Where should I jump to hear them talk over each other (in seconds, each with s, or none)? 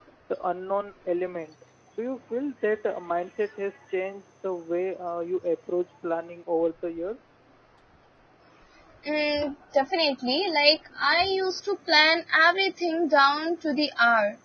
none